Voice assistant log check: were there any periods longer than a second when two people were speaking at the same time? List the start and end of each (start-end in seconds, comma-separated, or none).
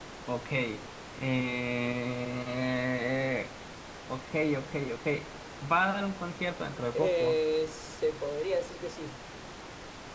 none